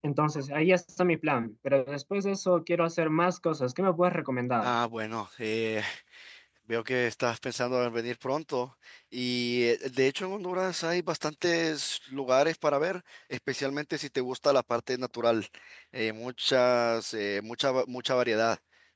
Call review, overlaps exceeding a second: none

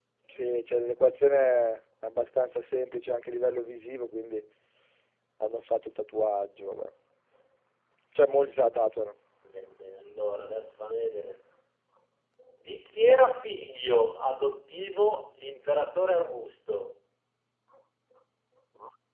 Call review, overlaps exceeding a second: none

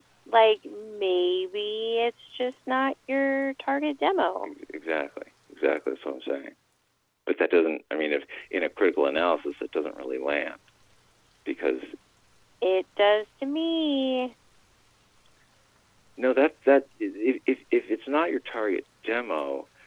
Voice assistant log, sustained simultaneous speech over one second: none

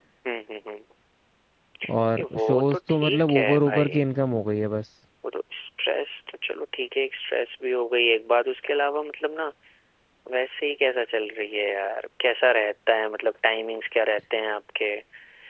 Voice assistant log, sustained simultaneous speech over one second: present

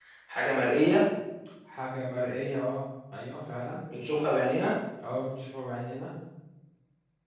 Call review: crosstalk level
none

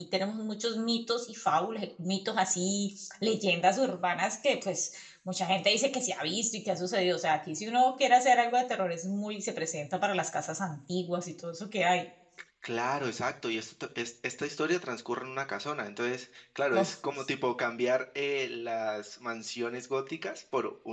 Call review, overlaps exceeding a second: none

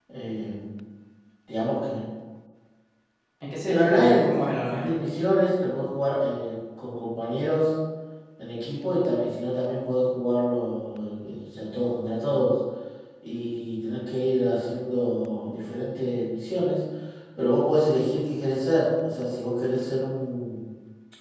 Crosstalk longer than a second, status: present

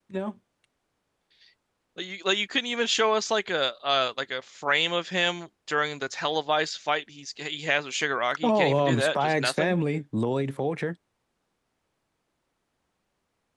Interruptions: present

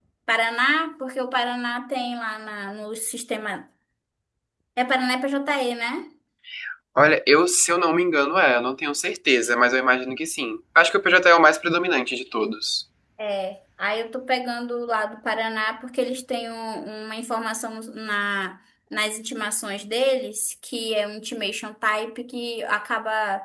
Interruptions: none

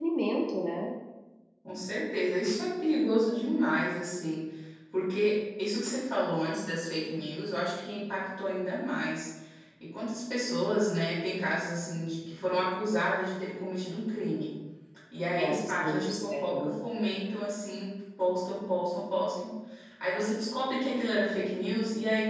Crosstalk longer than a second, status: present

